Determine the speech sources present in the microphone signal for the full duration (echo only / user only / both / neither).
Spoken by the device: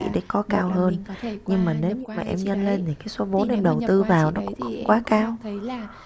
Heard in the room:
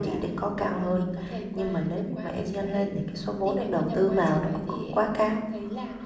echo only